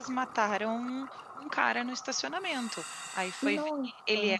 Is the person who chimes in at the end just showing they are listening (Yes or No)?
Yes